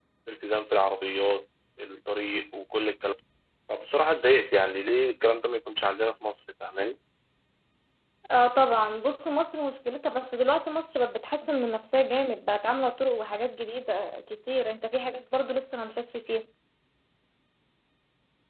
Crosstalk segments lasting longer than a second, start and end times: none

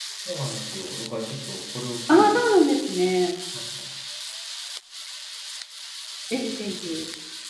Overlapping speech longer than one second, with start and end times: none

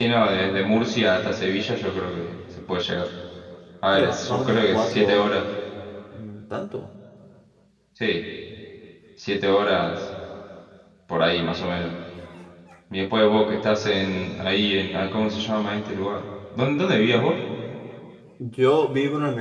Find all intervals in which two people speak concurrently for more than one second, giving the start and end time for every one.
3.9-5.2

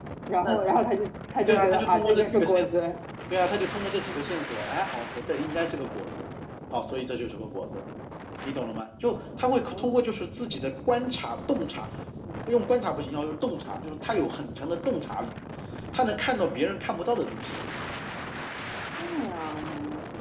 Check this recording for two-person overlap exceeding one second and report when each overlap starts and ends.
1.5-2.7

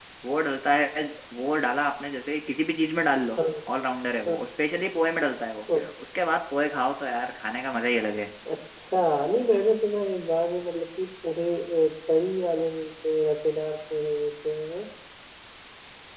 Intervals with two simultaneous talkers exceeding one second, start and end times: none

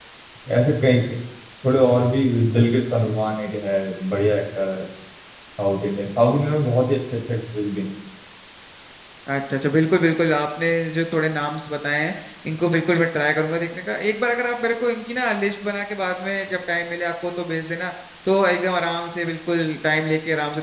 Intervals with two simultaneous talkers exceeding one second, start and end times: none

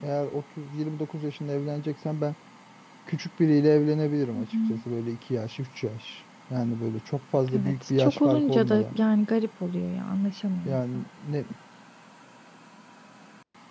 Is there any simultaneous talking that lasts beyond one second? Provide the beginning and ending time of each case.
7.5-8.9

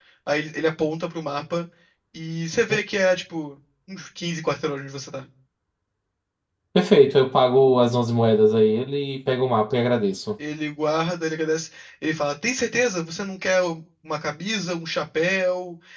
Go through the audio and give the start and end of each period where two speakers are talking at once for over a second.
none

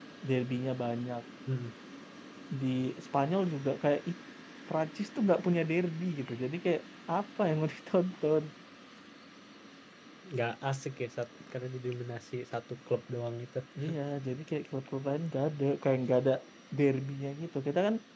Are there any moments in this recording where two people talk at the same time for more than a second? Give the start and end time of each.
none

